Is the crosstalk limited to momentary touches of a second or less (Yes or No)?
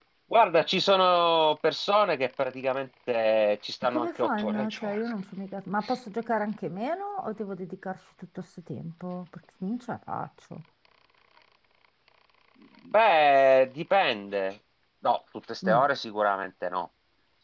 No